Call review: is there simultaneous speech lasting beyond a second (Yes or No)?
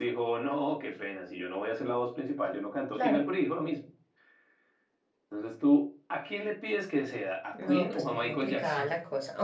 Yes